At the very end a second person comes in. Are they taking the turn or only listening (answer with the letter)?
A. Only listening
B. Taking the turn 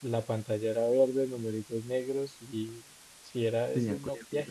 A